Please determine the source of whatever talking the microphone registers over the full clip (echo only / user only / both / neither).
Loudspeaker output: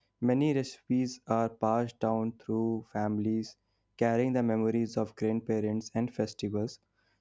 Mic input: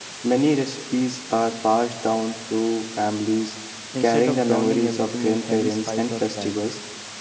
both